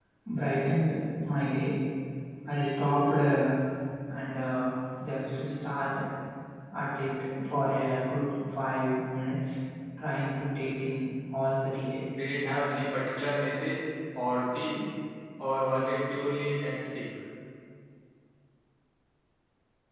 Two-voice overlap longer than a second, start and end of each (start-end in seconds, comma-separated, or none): none